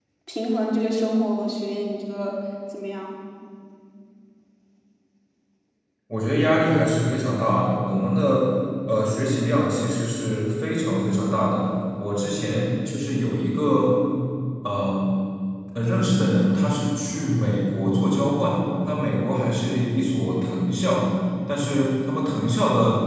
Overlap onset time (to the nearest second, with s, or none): none